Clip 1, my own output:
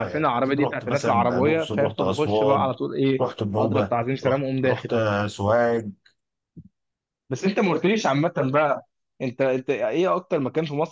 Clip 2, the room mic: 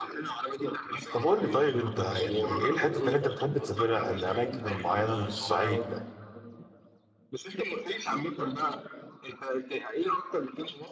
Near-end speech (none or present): present